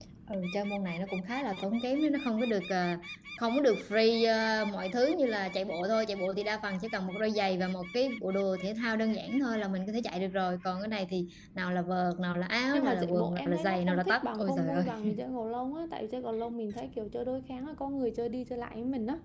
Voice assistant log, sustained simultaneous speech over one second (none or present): present